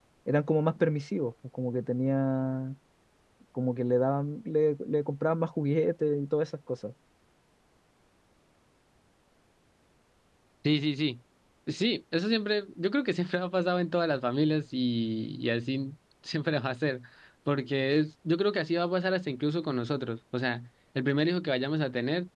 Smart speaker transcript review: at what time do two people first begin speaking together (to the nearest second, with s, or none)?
none